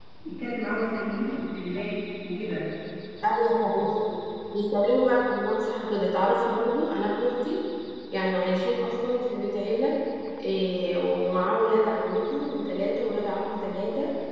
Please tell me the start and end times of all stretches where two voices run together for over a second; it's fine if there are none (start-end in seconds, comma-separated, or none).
none